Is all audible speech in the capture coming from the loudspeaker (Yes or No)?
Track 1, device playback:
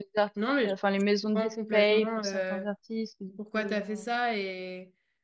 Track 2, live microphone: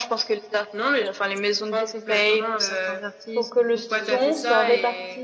No